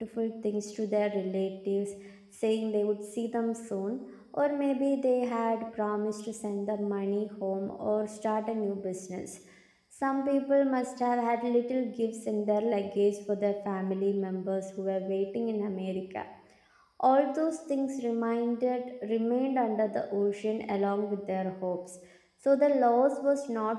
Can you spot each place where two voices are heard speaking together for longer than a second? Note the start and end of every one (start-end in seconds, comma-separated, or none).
none